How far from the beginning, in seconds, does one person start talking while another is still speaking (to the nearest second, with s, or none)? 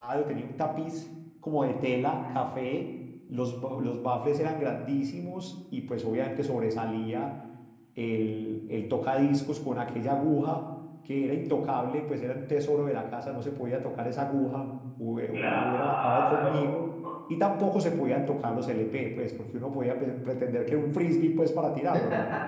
15 s